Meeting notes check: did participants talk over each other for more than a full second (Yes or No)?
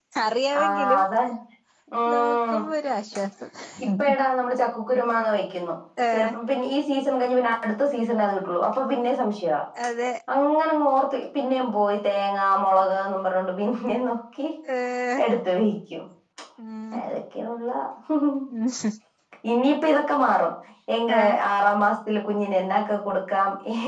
No